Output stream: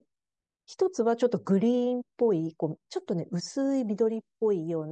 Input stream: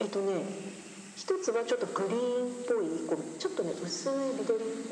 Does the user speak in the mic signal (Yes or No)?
No